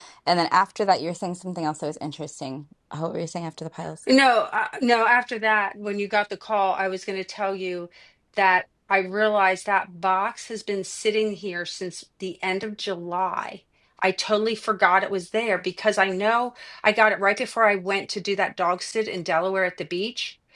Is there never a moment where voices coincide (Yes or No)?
Yes